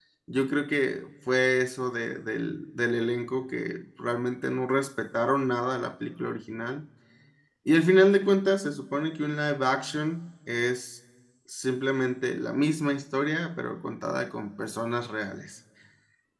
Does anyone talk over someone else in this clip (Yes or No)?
No